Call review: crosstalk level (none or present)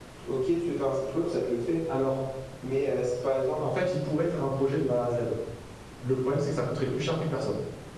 none